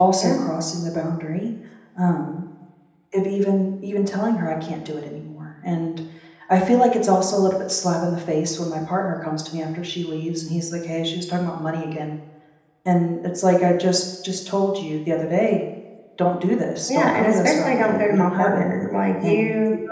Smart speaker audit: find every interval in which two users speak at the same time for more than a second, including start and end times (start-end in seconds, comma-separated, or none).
16.9-18.7